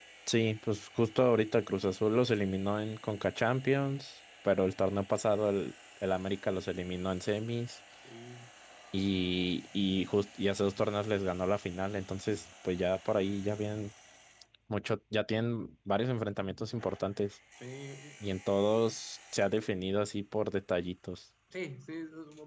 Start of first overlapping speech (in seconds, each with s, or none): none